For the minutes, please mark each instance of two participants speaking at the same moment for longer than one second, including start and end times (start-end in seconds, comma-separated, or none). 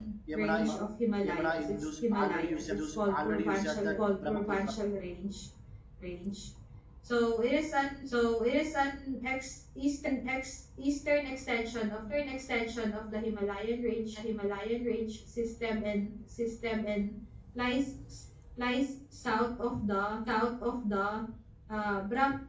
1.2-4.7